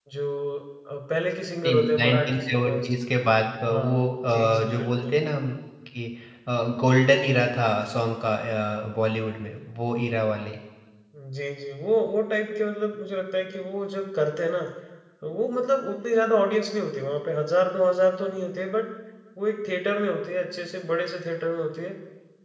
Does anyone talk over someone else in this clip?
Yes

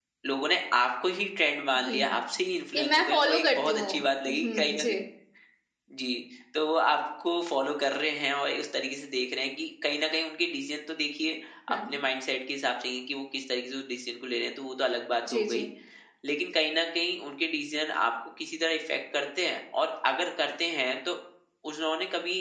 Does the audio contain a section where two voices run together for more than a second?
Yes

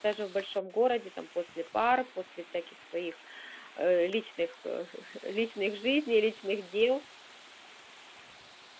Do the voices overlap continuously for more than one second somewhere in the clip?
No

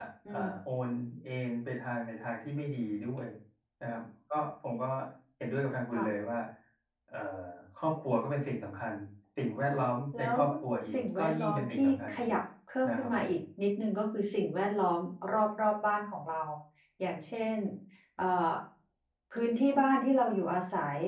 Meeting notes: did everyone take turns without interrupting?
No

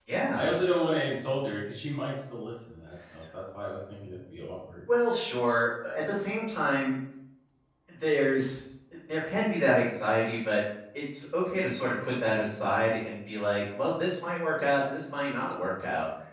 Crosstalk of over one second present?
No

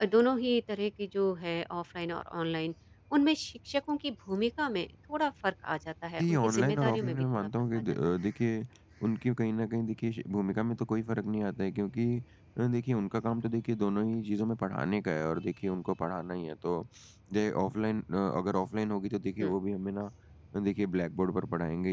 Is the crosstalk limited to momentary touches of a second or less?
No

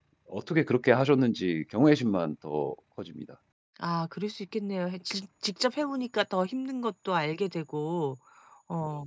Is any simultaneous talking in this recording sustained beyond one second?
No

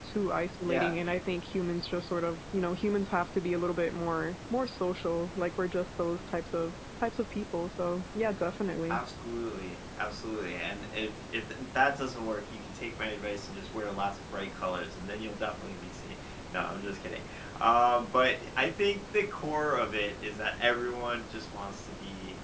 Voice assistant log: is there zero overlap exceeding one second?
Yes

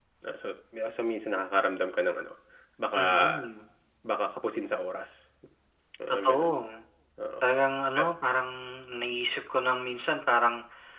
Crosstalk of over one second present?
No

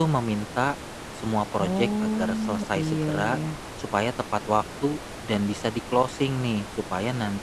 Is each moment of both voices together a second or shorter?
No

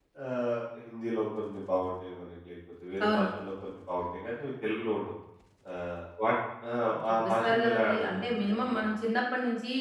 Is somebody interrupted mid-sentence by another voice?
Yes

